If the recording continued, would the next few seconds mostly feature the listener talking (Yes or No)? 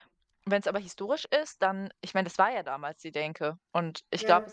No